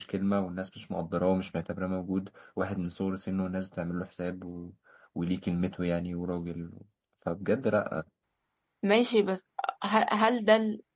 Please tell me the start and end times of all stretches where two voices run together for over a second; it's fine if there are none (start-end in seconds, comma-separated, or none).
none